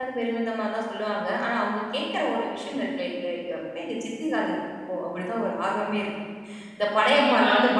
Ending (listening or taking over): listening